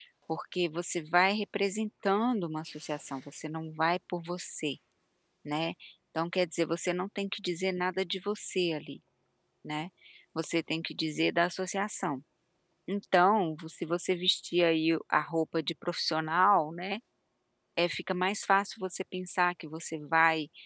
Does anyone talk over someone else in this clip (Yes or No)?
No